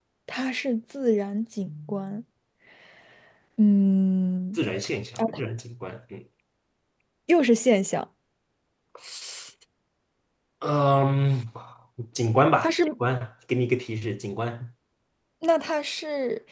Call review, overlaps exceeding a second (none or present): none